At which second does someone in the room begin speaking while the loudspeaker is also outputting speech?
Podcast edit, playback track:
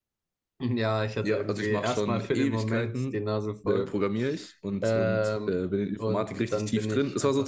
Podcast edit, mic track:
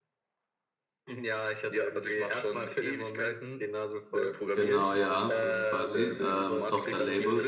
4.5 s

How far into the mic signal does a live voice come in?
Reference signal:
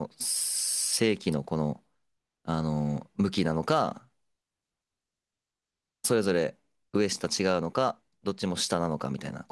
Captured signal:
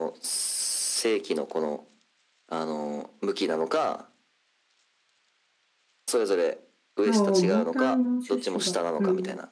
7.0 s

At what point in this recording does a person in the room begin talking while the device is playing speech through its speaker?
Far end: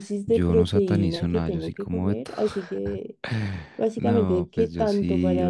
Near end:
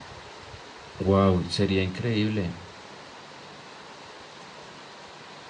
1.0 s

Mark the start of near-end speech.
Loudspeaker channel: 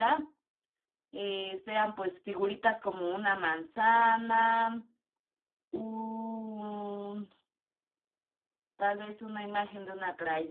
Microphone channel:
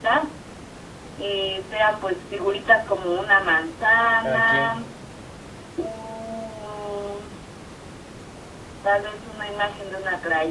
4.2 s

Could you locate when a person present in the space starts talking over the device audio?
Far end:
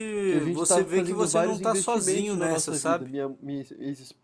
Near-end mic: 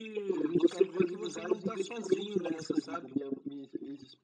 none

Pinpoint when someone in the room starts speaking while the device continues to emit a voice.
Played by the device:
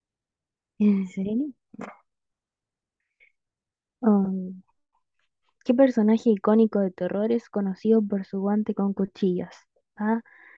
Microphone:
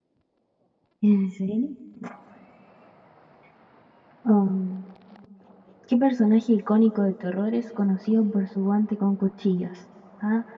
none

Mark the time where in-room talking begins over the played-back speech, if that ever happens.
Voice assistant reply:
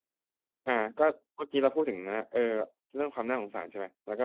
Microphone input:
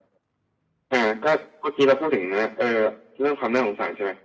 none

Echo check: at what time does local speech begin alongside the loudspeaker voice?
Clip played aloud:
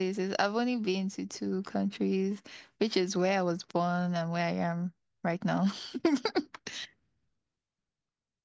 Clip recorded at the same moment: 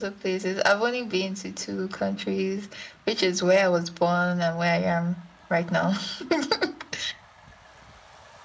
none

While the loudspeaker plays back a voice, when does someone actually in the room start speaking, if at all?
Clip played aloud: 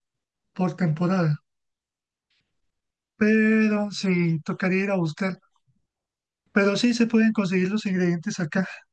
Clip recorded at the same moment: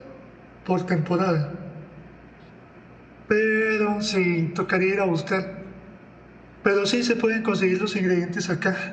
none

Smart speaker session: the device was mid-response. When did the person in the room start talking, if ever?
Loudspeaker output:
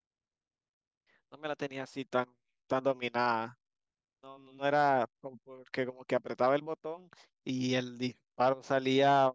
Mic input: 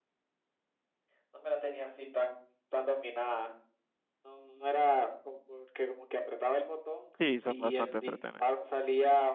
7.2 s

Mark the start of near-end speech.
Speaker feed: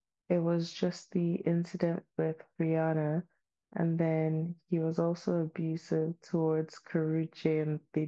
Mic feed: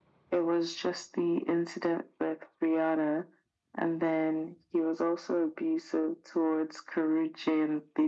none

